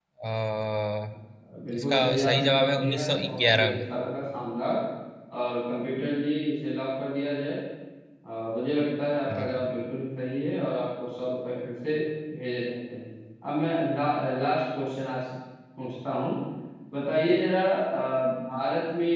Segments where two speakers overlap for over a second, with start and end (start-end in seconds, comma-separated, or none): 1.8-3.7